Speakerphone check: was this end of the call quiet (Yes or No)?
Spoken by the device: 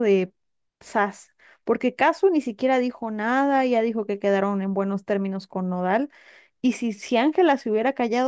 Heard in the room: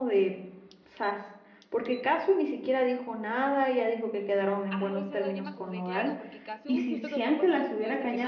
No